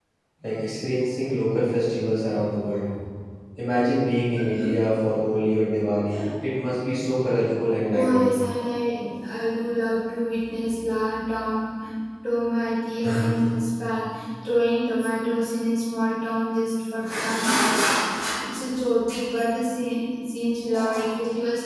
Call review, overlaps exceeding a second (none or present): none